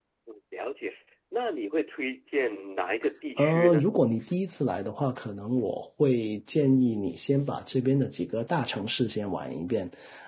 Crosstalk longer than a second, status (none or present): none